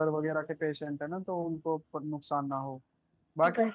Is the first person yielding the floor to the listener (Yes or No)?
No